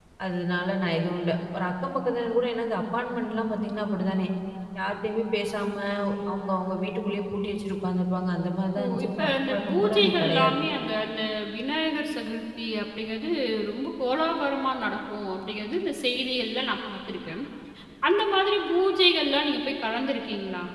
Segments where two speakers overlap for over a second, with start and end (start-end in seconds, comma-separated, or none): 8.8-10.6